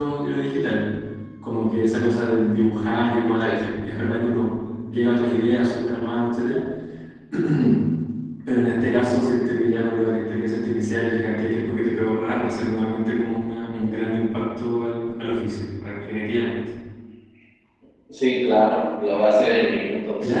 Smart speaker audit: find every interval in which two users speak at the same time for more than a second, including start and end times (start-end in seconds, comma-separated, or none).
none